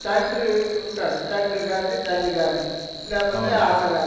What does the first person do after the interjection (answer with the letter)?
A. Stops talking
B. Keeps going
B